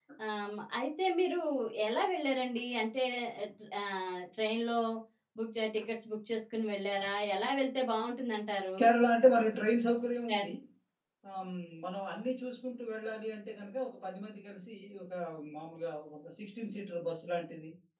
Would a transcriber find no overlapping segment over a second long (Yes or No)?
Yes